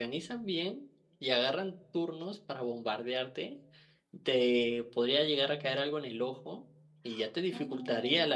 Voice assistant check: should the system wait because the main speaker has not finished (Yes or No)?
Yes